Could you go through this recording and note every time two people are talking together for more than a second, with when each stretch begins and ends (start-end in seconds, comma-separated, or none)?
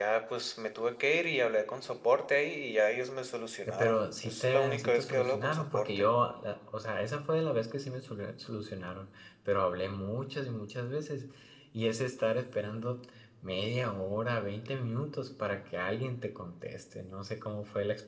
3.7-6.1